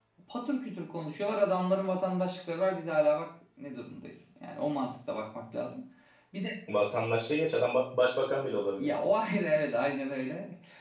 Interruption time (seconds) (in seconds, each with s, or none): none